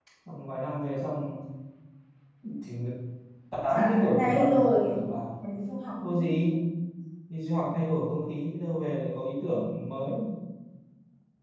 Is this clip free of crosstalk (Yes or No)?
No